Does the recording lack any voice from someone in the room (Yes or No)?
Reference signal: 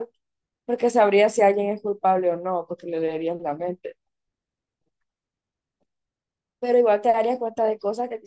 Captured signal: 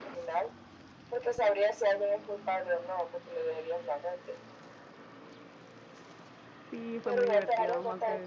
No